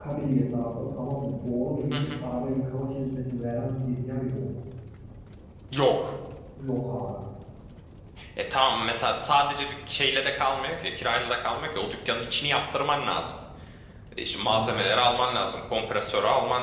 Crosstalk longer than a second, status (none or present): none